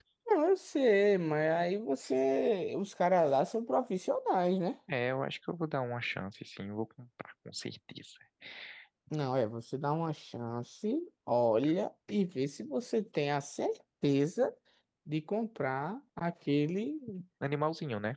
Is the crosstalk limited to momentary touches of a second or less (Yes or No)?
Yes